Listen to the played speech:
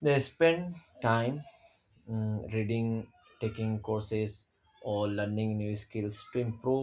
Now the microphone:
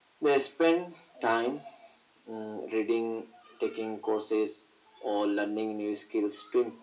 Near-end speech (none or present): none